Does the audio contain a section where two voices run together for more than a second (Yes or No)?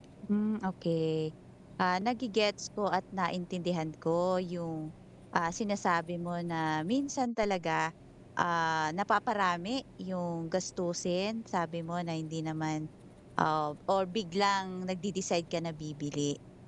No